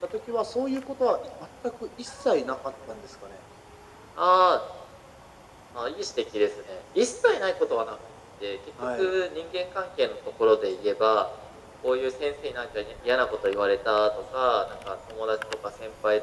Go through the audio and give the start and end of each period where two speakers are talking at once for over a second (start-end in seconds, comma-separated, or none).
none